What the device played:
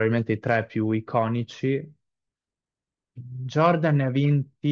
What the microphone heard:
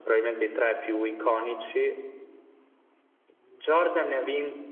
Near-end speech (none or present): none